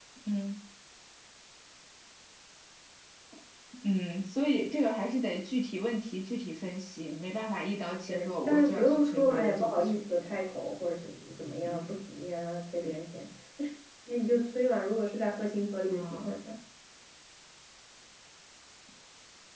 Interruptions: present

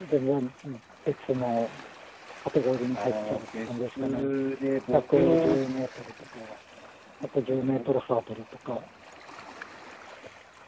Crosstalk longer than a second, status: present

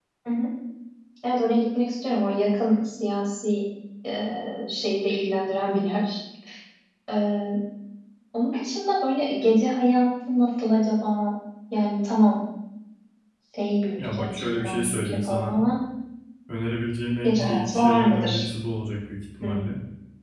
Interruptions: present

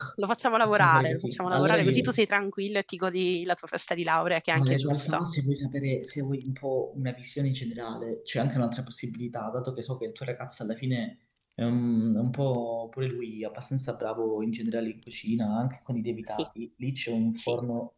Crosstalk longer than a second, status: present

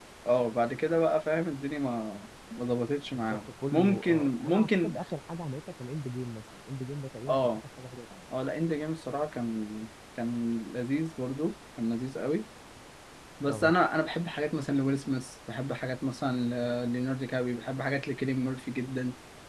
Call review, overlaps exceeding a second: present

